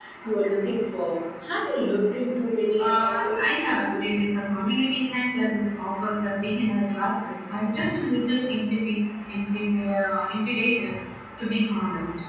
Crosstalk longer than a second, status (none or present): present